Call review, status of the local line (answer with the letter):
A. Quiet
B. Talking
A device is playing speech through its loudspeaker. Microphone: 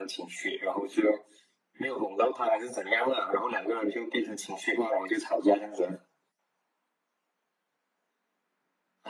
A